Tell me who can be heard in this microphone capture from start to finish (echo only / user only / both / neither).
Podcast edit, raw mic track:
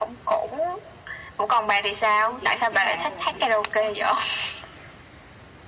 both